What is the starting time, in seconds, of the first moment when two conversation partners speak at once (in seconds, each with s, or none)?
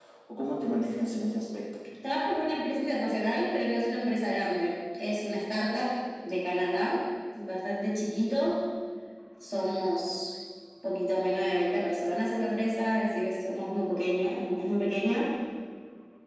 none